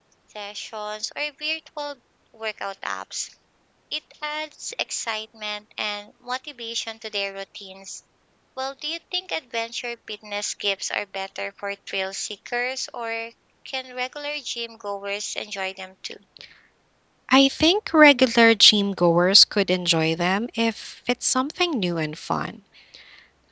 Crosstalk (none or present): none